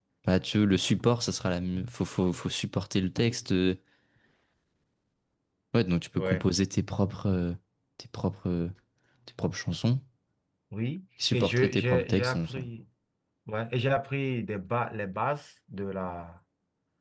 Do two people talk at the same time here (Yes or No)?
Yes